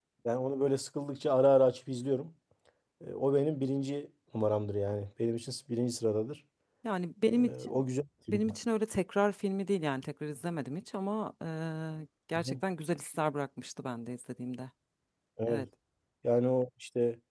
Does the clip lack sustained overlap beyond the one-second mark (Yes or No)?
Yes